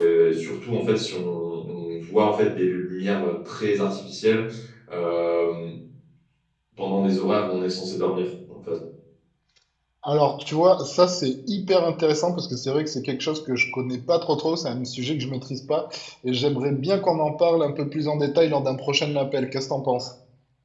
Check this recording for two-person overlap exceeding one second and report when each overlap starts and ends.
none

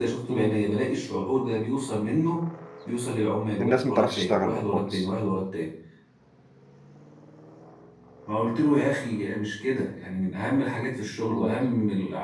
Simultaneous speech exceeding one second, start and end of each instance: 3.6-5.0

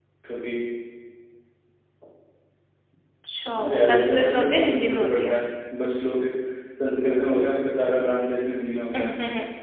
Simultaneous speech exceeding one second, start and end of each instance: 3.6-5.4

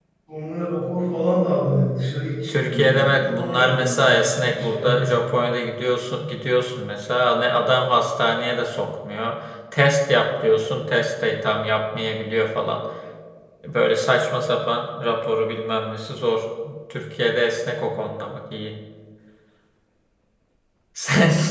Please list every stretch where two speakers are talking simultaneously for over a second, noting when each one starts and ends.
2.5-5.3

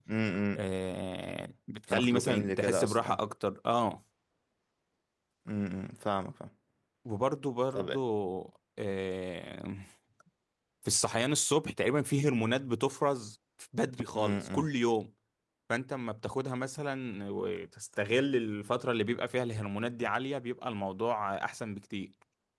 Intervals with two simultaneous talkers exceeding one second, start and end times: 1.9-3.2

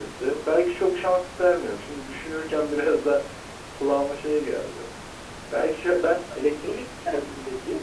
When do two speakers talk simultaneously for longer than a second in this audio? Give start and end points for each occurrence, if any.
none

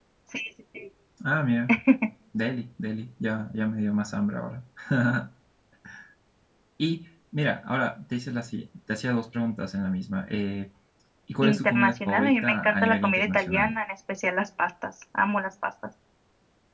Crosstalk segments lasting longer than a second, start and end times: 11.4-13.8

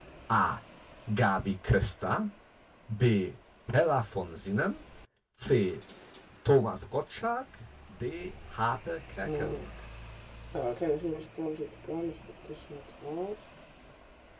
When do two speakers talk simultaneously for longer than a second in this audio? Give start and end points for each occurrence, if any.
none

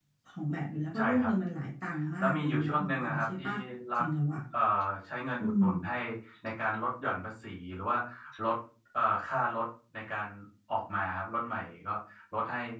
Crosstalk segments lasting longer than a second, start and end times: 2.2-3.4

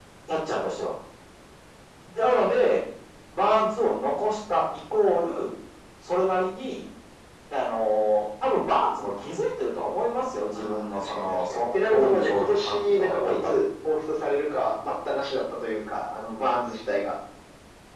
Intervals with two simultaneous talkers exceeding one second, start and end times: 10.5-13.6

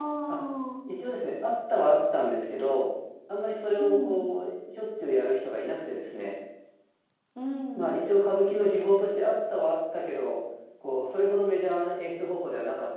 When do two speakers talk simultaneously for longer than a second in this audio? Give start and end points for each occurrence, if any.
none

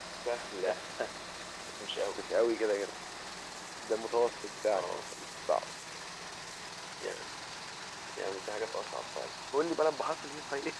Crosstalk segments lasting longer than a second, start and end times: none

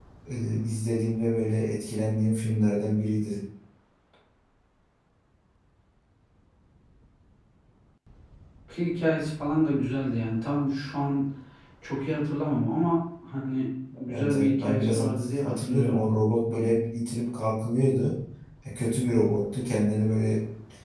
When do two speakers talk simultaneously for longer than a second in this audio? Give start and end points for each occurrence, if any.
14.1-16.1

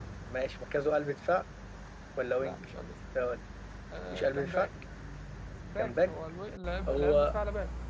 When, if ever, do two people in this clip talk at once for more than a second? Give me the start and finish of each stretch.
none

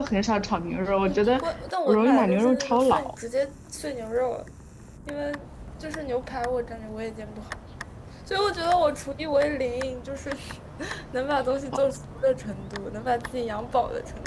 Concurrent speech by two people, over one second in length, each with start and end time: 1.9-3.1

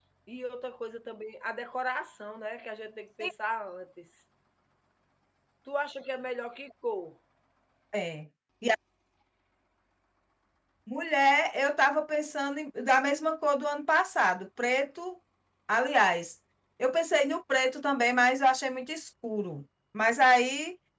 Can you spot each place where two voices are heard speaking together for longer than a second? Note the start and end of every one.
none

